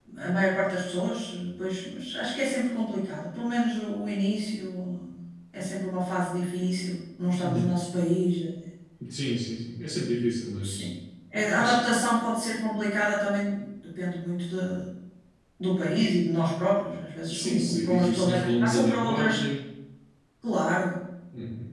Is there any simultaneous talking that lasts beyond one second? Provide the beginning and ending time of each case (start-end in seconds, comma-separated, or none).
17.3-19.4